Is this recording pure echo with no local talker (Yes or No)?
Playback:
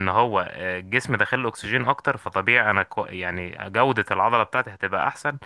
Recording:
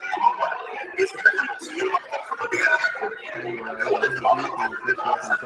No